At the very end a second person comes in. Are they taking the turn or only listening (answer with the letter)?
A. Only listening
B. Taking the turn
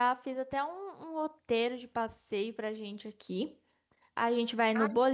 A